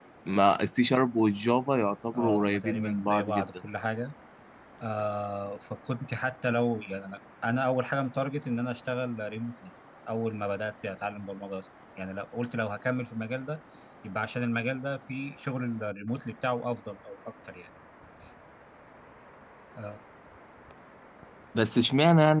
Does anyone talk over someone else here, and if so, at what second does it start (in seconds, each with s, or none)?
2.1 s